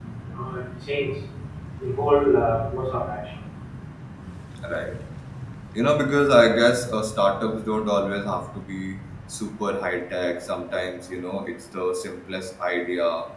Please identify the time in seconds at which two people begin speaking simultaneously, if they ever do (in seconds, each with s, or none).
none